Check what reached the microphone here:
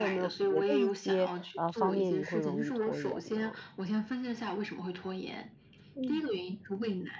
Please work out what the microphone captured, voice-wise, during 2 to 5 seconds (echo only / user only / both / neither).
both